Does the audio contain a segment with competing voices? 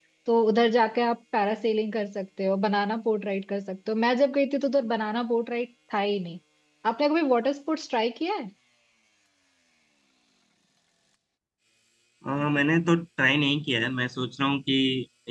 No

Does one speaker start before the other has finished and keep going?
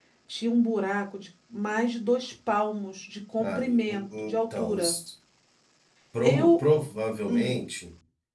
Yes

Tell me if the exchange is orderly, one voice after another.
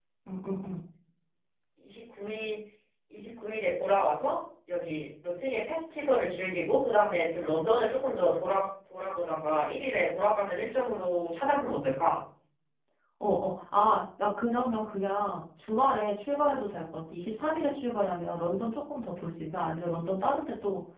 Yes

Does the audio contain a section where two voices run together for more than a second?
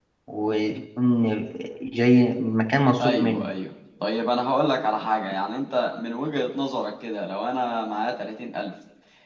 No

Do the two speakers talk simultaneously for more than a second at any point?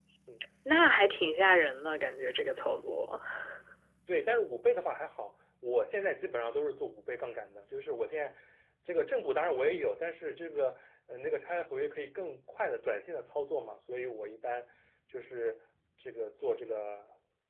No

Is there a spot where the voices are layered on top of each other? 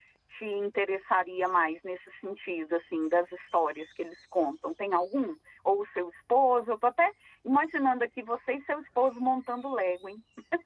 No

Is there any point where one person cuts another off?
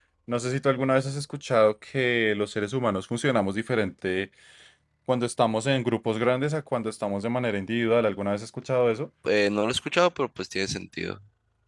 No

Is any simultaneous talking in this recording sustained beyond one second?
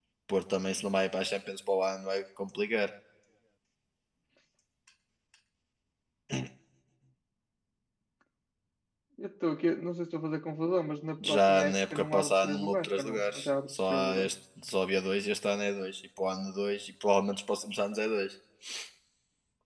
Yes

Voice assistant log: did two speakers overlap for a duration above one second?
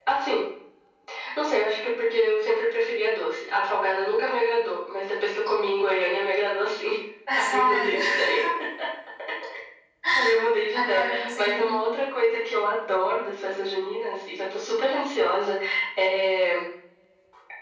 Yes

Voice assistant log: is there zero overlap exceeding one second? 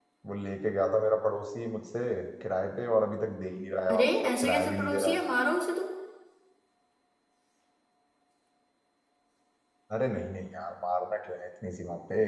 No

